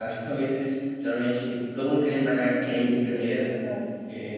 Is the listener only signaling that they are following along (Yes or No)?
Yes